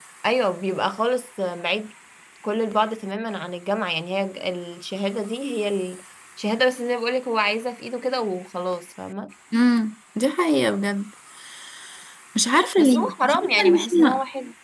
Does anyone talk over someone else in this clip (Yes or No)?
Yes